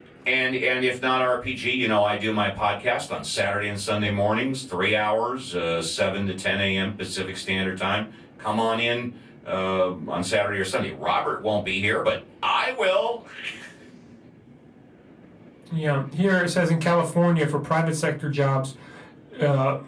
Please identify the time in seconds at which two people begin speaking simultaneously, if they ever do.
none

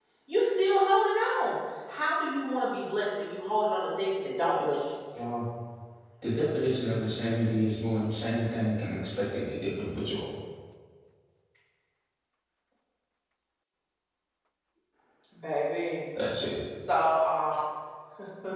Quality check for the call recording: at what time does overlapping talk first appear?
none

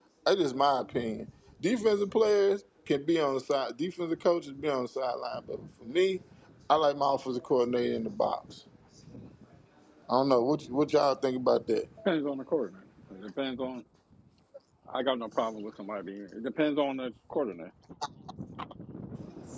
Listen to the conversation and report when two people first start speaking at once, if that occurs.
none

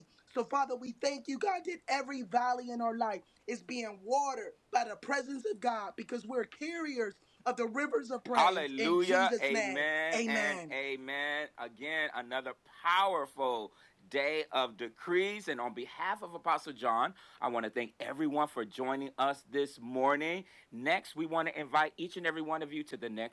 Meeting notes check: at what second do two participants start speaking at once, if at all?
8.3 s

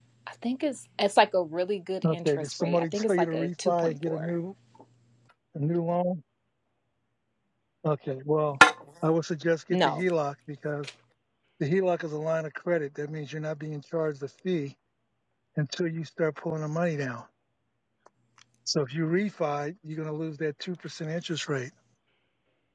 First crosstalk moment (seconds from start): 2.1 s

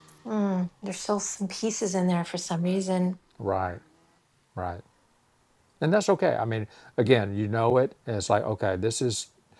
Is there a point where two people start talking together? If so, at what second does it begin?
none

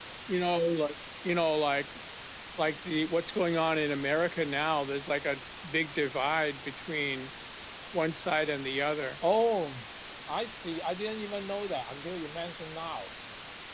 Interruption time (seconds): none

